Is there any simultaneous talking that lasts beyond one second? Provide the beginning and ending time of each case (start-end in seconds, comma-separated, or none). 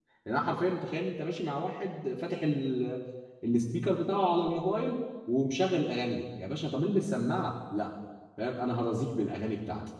none